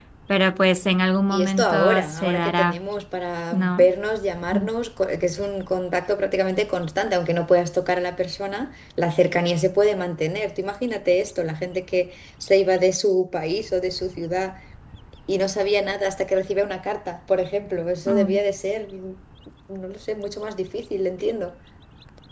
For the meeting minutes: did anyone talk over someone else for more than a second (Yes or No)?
Yes